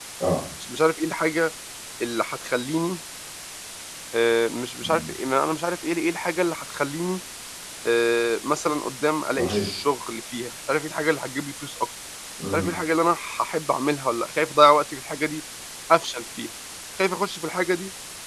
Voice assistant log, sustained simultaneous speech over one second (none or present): none